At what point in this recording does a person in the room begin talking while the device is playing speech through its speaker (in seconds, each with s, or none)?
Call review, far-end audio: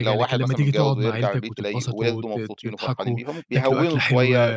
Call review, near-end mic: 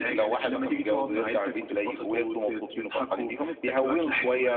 none